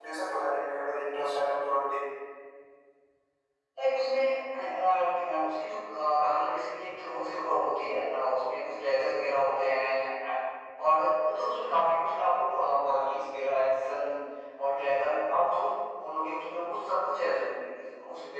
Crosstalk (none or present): none